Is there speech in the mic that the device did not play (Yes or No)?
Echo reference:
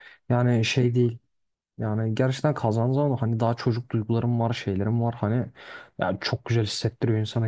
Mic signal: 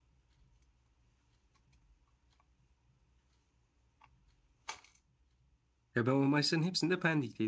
Yes